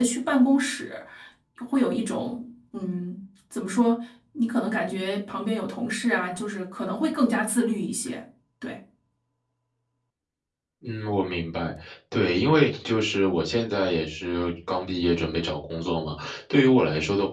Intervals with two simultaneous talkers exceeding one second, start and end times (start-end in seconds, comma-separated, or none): none